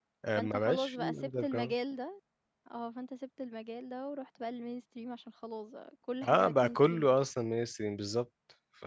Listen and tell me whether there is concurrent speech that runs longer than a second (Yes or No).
Yes